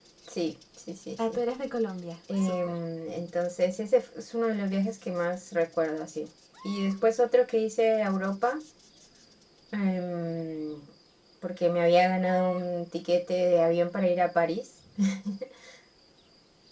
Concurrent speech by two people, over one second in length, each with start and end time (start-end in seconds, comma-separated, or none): none